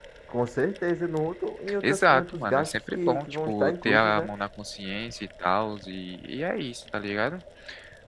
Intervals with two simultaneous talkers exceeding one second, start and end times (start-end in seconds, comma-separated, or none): 1.8-4.3